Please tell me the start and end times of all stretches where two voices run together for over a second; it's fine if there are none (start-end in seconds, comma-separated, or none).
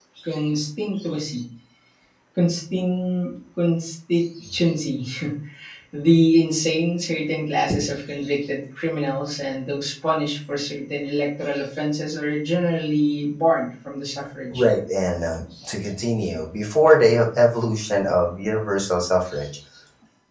none